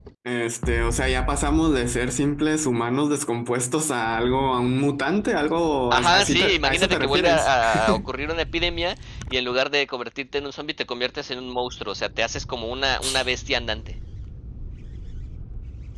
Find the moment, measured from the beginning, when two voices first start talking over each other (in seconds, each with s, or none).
5.9 s